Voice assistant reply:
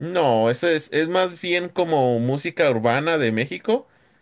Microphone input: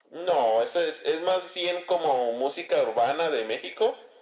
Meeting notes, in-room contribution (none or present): none